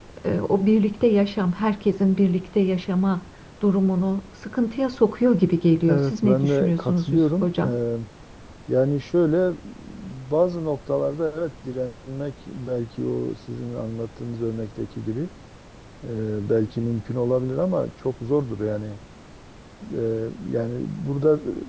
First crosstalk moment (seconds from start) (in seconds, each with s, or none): 5.9 s